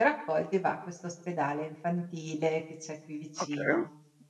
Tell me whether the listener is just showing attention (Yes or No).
No